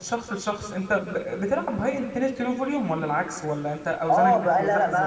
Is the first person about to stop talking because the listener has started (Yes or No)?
Yes